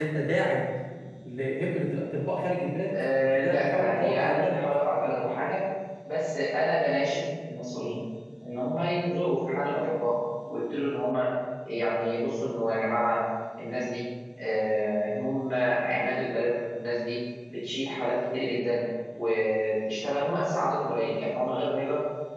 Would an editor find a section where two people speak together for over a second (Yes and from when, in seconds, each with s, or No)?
Yes, from 2.9 s